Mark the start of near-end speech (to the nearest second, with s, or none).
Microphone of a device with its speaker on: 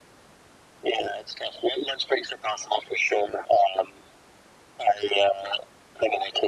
none